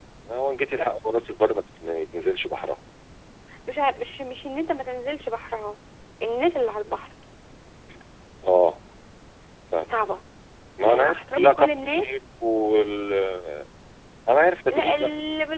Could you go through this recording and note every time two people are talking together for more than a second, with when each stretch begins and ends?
10.8-12.1

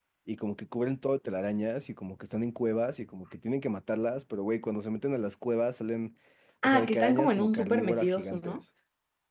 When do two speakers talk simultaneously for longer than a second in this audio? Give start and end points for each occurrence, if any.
6.6-8.6

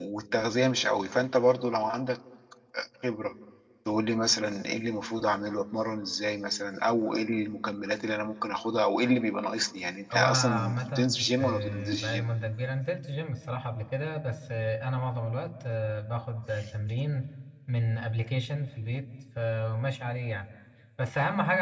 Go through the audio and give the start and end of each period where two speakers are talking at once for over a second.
10.1-12.2

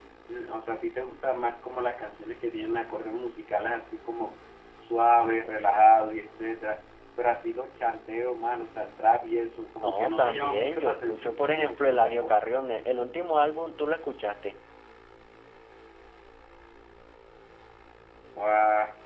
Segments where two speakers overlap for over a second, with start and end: 9.8-12.4

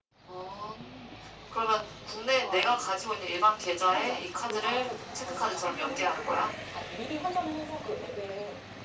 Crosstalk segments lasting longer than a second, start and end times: 3.9-6.5

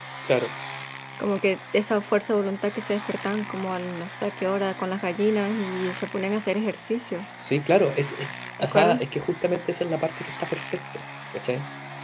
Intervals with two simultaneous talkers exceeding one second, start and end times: none

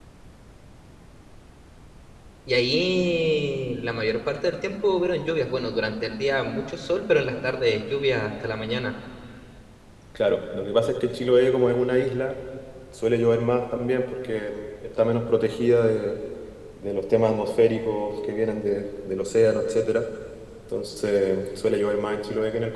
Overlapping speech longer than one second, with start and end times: none

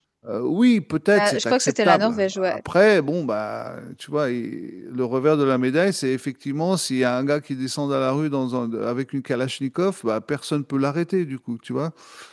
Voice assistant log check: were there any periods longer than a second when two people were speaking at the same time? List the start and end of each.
1.1-2.6

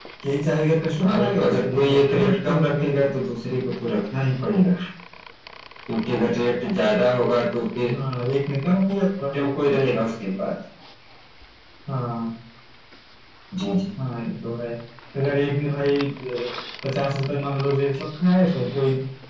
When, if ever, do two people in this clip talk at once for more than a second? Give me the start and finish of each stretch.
1.0-2.9

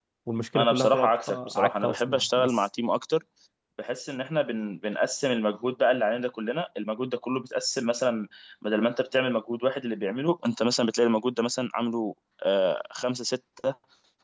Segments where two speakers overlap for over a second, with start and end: 0.6-2.7

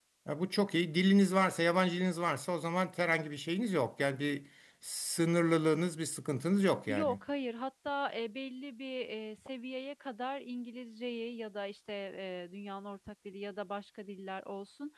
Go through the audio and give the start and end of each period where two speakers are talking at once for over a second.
none

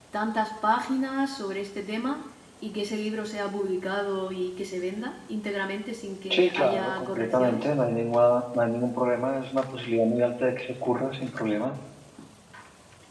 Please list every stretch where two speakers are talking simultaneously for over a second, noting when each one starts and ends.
6.3-7.7

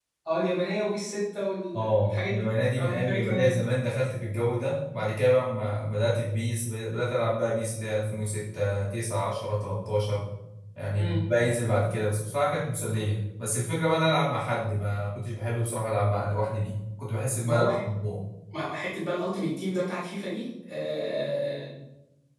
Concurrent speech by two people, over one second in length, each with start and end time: 1.8-3.6

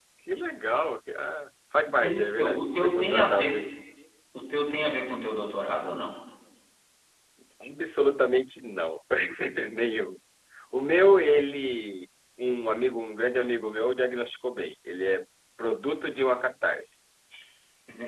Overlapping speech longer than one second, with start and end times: 2.0-3.6

